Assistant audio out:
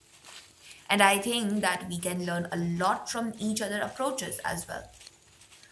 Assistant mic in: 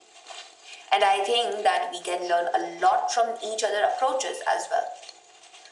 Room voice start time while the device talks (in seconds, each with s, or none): none